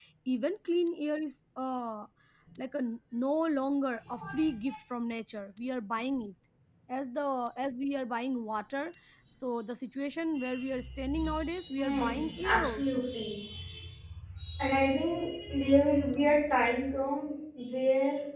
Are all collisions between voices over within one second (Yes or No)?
No